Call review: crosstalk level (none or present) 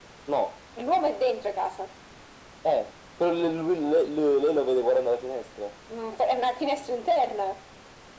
none